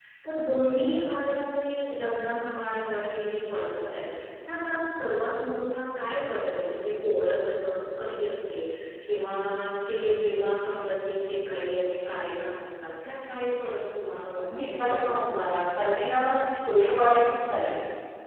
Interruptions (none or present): present